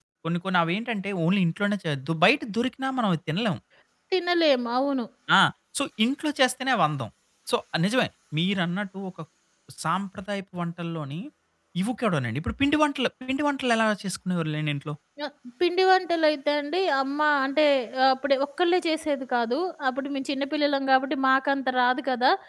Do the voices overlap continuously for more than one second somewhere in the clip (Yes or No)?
No